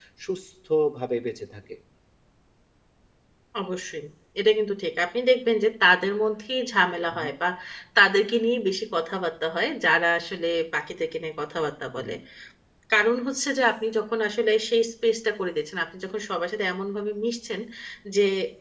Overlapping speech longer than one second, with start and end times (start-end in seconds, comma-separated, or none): none